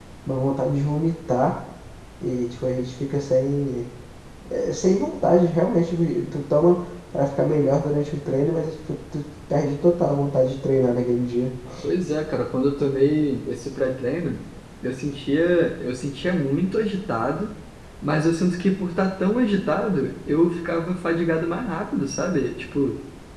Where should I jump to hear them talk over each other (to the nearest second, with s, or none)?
none